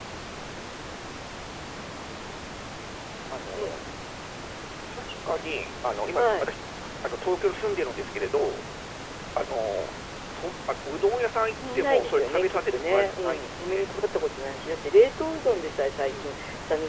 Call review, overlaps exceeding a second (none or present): present